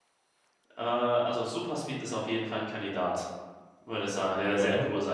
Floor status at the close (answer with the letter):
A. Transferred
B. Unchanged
B